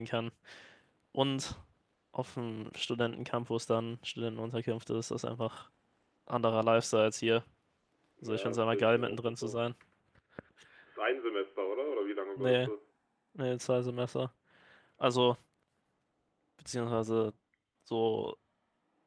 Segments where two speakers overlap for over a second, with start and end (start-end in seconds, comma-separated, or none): 8.2-9.6